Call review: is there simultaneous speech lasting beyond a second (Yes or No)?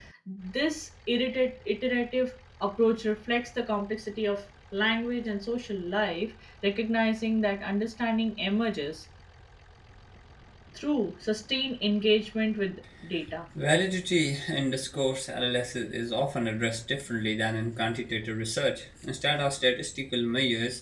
No